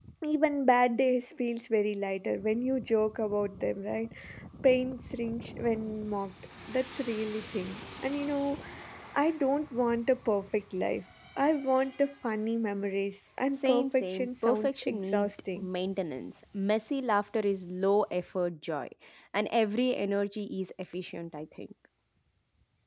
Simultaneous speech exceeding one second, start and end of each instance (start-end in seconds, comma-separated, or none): 13.6-15.7